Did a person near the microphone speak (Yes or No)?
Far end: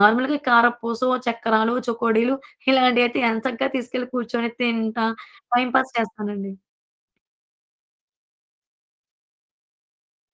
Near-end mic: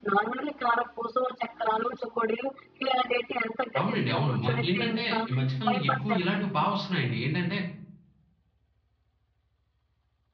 Yes